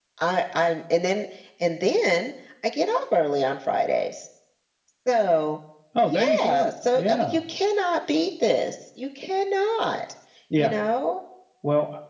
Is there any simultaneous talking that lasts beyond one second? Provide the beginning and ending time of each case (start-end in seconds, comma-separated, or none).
6.0-7.4